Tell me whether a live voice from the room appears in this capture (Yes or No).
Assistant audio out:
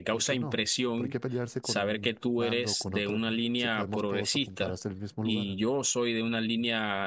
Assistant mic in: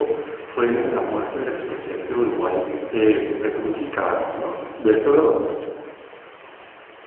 Yes